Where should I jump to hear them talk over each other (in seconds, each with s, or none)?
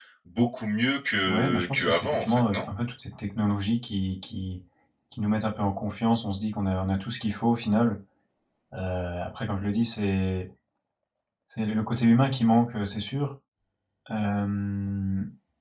1.2 s